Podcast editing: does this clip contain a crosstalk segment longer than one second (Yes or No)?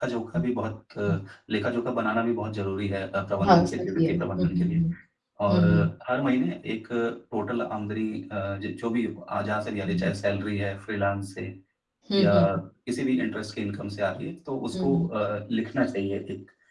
Yes